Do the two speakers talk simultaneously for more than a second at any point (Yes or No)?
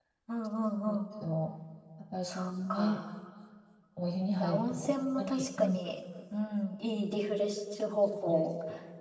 Yes